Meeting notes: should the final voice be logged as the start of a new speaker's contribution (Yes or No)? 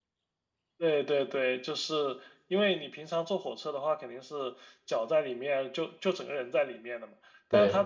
No